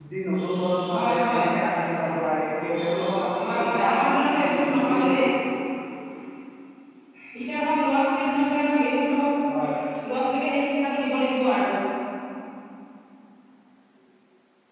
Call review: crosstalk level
present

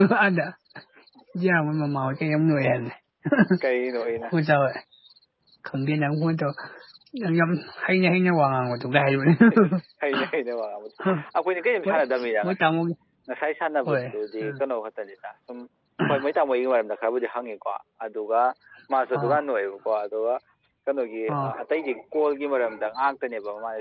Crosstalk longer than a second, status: none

